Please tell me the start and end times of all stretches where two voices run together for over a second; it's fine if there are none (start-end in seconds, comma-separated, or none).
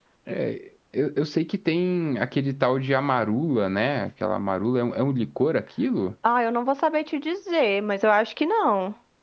none